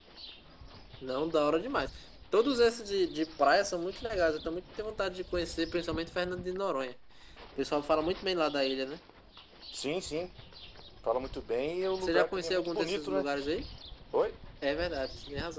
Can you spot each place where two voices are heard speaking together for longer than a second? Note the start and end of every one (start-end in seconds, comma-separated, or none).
12.0-13.3